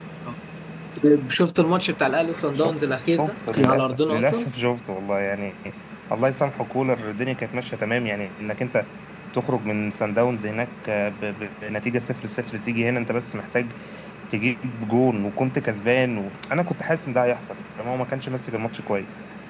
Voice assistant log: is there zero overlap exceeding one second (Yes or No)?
No